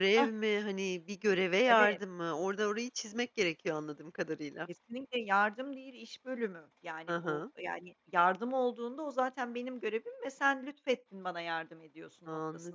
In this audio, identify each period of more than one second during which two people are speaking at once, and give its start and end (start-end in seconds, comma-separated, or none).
none